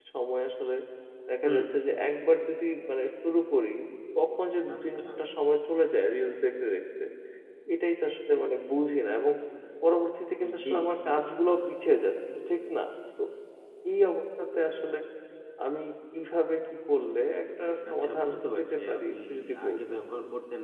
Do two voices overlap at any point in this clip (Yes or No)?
Yes